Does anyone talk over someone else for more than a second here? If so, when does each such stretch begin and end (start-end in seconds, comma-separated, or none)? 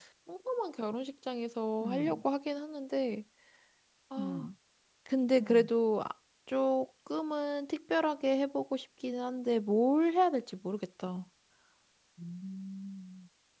none